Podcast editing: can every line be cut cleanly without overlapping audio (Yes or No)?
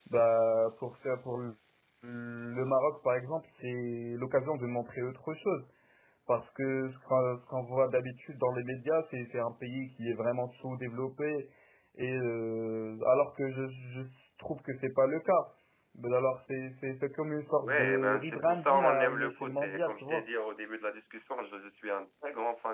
No